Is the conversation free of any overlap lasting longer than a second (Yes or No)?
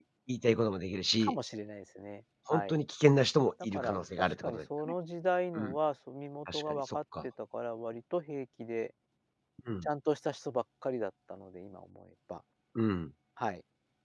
No